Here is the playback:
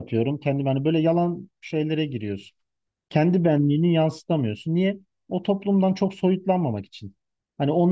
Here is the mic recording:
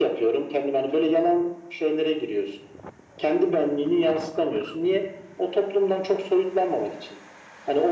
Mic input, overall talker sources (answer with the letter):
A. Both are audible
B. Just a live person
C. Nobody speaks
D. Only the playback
D